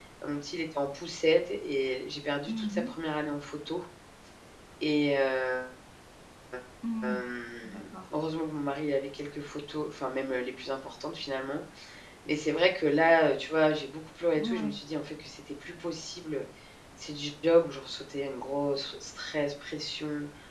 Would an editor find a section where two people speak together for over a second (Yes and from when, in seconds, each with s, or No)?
No